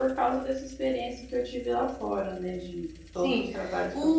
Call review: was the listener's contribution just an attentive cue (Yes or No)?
No